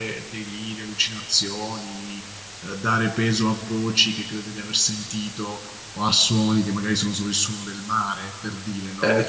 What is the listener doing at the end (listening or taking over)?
taking over